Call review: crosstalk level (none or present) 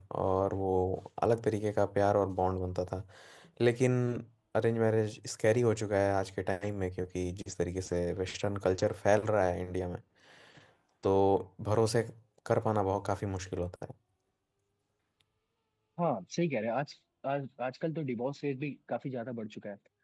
none